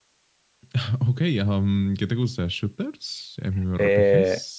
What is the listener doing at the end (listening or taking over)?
taking over